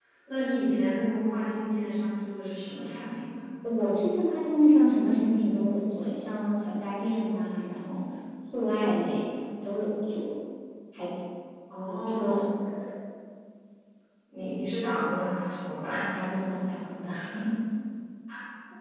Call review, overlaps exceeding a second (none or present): none